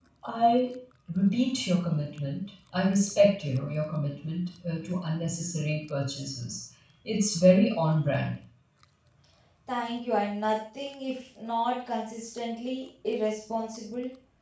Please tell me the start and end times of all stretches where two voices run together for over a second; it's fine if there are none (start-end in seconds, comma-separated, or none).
none